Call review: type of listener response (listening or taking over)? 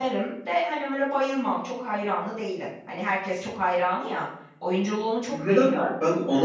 taking over